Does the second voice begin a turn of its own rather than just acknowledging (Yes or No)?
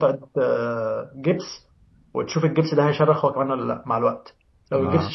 No